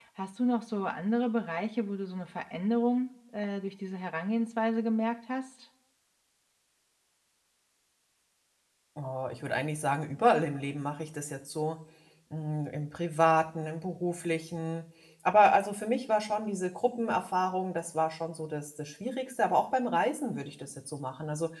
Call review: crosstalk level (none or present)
none